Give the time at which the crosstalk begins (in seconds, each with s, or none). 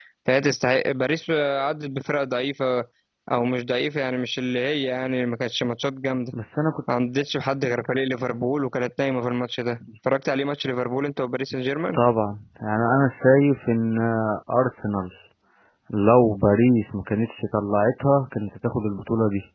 none